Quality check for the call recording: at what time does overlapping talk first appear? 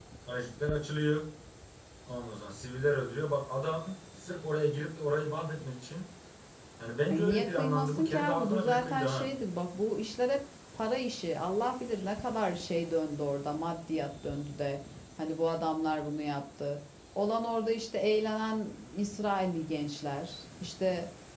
7.1 s

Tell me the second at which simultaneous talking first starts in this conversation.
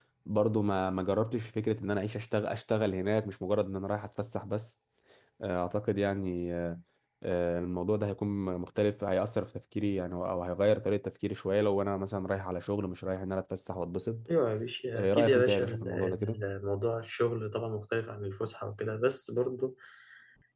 14.9 s

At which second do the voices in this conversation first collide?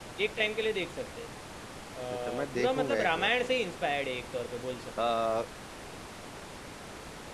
2.1 s

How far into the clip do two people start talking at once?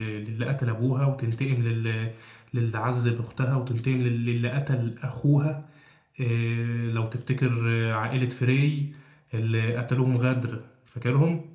none

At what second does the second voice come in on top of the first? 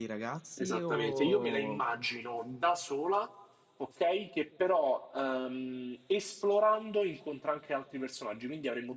0.6 s

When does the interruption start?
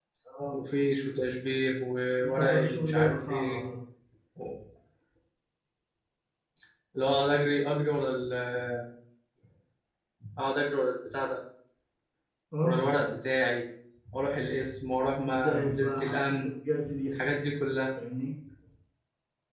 2.2 s

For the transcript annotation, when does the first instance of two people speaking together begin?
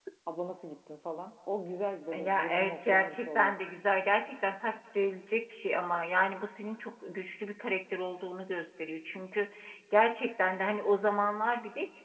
2.1 s

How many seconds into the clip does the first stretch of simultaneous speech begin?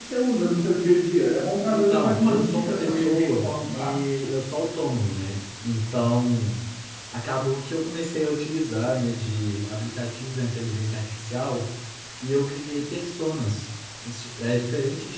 1.7 s

